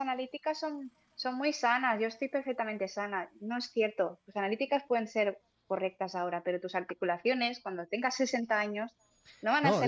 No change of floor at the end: No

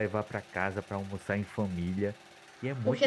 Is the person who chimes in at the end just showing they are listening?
No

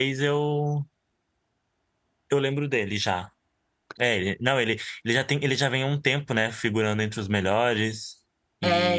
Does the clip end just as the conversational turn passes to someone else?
Yes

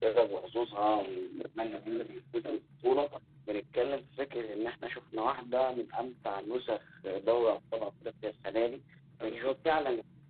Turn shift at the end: No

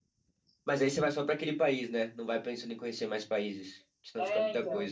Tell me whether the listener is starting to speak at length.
Yes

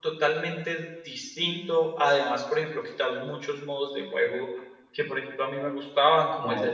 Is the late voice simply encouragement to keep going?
Yes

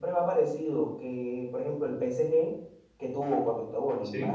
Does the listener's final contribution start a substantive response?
No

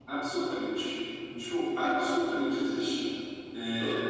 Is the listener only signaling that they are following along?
Yes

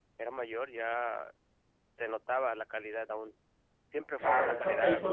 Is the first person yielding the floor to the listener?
Yes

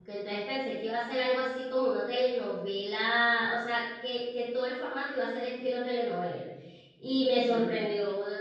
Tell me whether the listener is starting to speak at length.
No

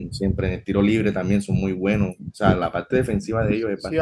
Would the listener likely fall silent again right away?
No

